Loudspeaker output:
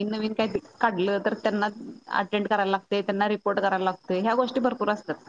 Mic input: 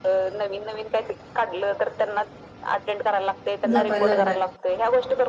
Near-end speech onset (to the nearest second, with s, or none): 4 s